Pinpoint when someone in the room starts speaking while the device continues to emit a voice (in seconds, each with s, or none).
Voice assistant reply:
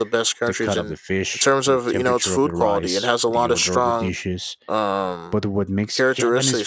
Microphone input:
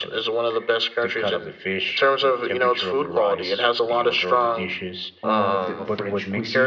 5.2 s